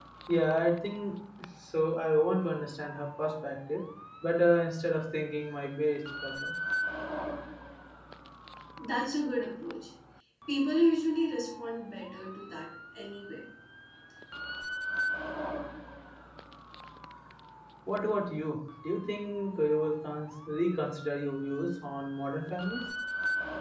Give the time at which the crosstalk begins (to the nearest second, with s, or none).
none